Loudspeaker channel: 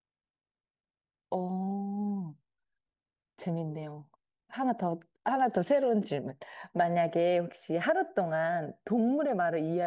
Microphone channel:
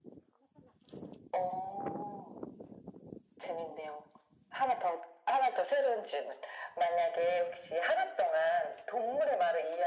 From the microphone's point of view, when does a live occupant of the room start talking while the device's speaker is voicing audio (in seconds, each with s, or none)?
none